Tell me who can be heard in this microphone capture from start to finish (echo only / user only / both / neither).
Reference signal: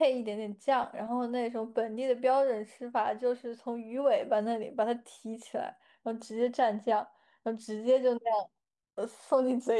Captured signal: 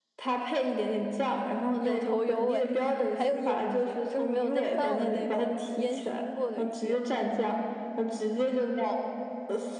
both